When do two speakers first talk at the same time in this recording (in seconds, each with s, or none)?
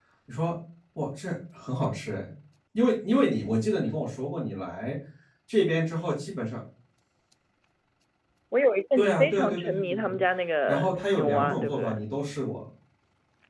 9.0 s